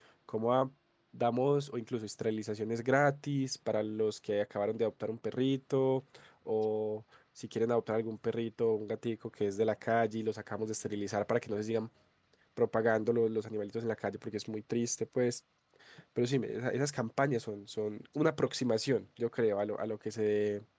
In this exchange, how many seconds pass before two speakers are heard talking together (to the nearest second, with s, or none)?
none